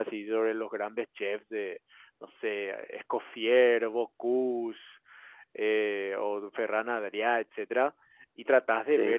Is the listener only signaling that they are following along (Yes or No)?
Yes